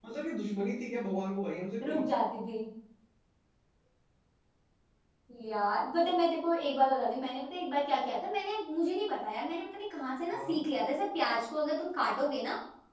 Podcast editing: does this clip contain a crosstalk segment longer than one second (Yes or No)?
No